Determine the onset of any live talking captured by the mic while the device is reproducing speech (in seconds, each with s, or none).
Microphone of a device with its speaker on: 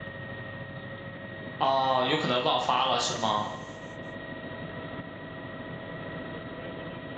1.6 s